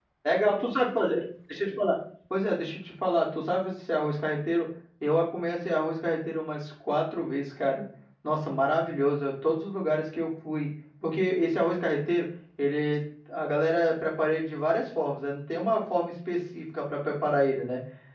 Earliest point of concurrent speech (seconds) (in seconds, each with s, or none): none